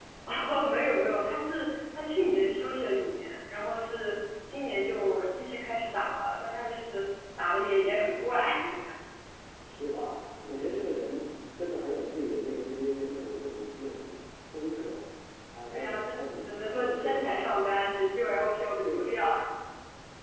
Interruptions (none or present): present